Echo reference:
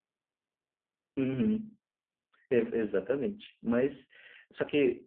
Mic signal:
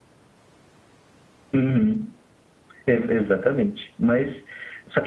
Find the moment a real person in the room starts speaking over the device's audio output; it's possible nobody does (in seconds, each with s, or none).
none